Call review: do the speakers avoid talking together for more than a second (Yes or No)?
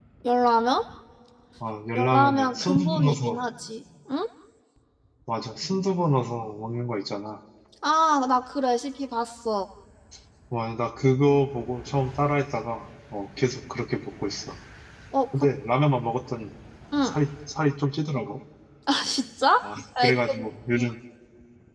No